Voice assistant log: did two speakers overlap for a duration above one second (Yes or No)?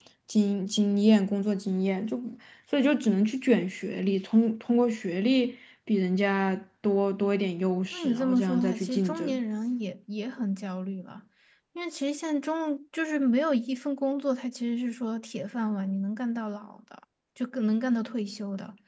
Yes